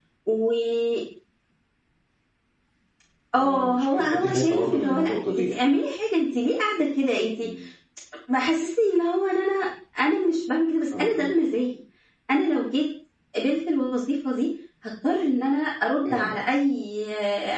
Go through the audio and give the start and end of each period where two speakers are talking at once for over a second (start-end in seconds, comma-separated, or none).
3.4-5.8